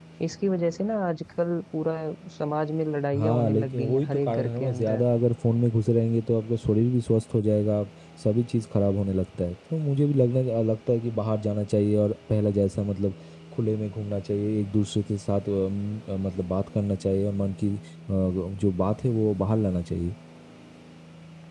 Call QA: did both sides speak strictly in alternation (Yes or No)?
No